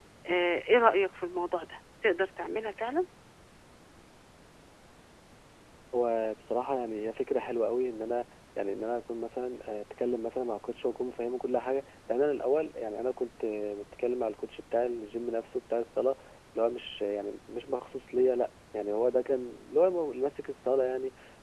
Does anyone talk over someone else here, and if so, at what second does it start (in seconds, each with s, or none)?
none